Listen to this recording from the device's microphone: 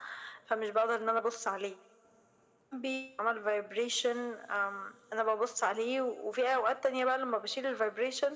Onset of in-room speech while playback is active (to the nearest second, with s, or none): none